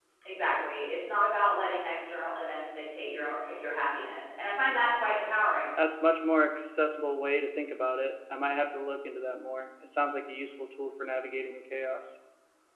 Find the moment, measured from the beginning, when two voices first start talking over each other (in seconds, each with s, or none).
none